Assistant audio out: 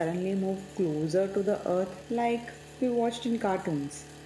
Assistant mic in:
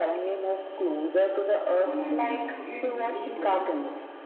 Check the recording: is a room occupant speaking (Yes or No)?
Yes